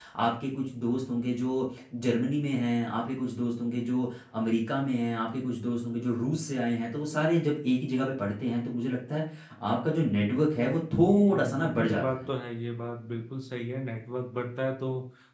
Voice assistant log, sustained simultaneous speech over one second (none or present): present